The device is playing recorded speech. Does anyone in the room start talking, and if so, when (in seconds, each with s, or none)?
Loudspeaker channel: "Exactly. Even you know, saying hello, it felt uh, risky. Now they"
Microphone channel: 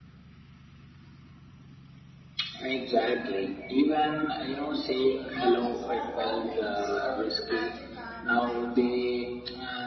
5.3 s